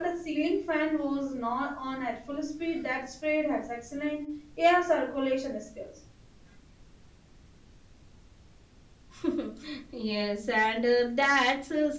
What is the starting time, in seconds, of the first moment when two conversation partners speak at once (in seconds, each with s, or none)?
none